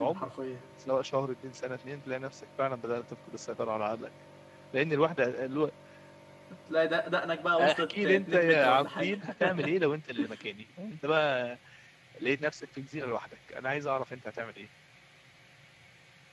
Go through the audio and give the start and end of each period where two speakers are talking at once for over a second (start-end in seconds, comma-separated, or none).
7.6-9.2